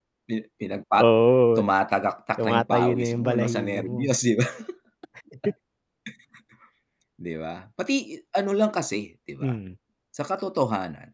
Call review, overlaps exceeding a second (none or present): present